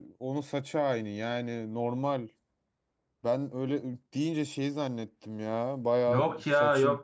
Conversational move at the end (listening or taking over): taking over